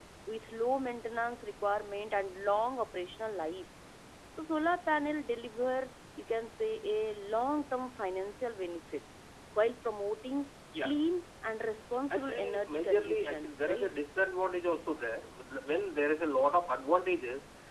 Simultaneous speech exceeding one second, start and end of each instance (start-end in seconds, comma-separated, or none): 12.2-13.9